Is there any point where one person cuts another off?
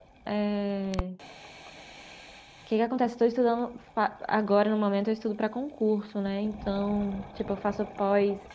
No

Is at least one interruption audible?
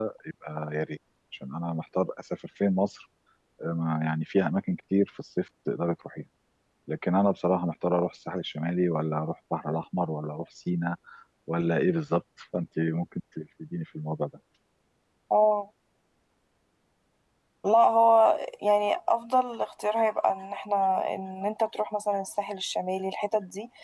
No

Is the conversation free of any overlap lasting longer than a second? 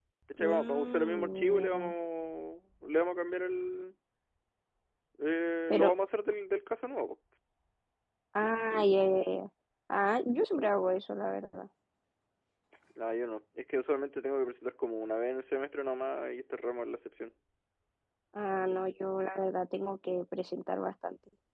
No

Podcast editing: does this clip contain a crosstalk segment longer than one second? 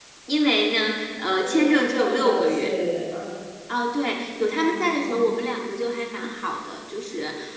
Yes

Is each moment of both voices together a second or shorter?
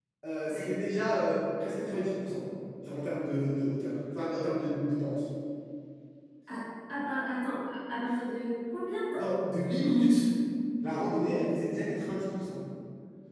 Yes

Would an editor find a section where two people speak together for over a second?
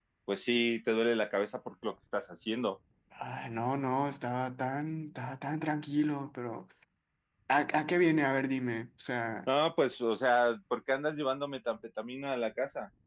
No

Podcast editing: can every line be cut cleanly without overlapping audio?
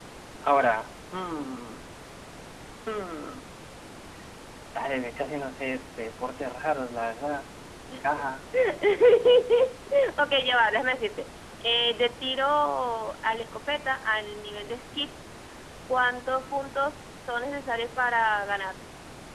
Yes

